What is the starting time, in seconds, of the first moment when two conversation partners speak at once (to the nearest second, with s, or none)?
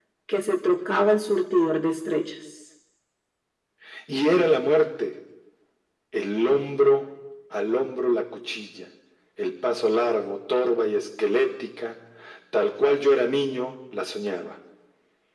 none